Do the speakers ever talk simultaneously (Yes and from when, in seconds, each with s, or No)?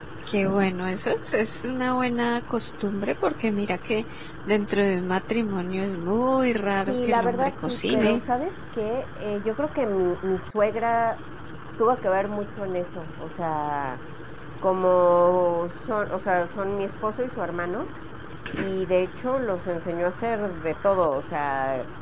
Yes, from 6.9 s